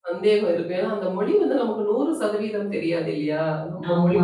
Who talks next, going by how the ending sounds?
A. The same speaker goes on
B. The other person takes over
B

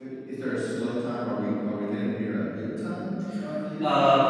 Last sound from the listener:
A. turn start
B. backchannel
A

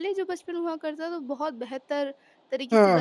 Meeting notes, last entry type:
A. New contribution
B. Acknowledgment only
A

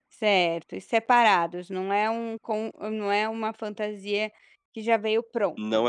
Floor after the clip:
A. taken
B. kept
A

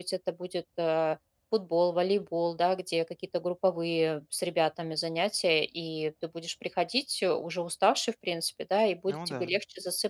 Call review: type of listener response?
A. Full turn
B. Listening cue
B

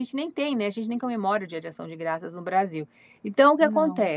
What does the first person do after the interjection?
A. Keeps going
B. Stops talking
A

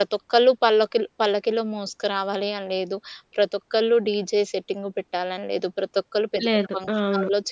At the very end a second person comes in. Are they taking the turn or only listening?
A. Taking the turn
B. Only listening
B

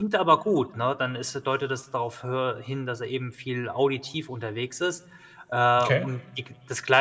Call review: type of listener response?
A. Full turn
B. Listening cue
B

